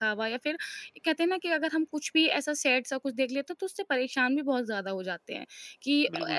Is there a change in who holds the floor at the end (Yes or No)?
Yes